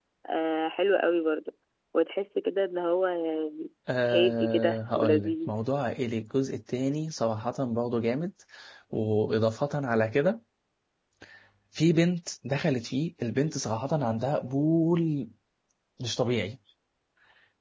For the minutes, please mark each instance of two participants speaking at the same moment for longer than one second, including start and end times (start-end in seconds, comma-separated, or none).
4.1-5.5